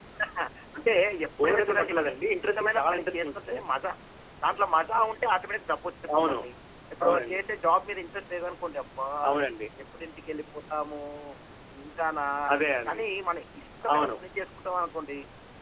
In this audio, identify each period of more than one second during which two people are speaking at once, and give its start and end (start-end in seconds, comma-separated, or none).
1.4-3.6